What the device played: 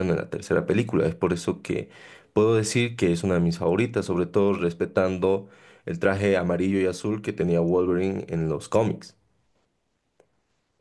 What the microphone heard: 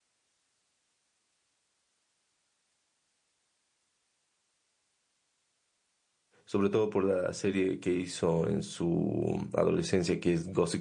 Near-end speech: present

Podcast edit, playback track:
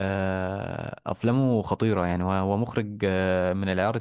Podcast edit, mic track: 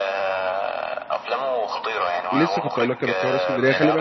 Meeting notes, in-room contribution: present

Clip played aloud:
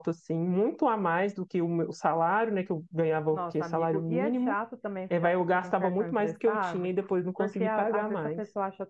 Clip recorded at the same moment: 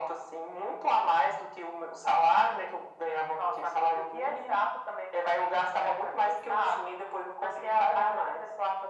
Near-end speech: none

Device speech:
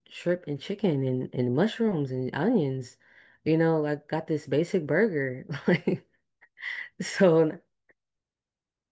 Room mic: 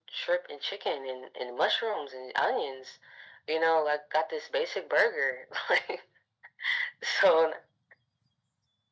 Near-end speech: none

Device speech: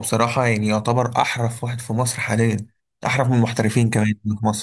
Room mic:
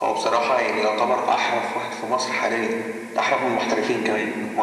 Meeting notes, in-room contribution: none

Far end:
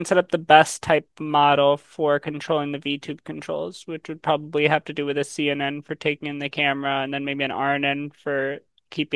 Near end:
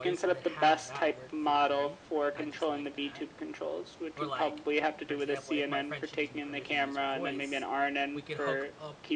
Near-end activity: present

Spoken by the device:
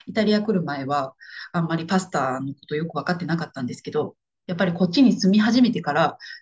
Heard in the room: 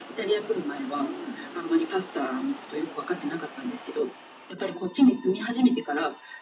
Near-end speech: present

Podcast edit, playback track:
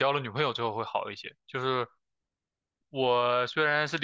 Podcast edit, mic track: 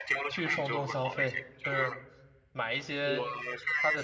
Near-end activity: present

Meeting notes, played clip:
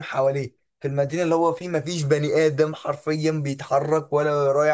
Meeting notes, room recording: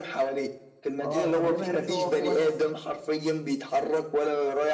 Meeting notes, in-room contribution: present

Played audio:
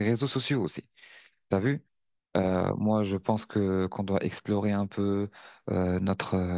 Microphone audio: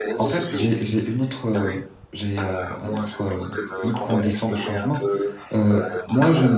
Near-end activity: present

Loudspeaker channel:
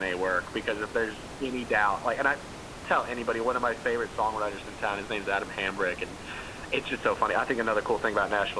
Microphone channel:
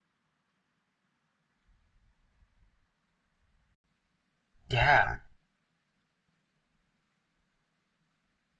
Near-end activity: present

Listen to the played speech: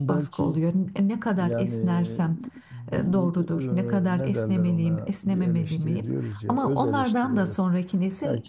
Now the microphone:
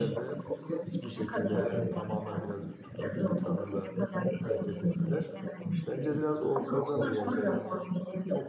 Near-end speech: present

